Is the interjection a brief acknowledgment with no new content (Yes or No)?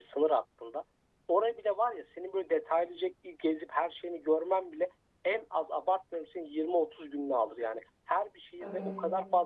Yes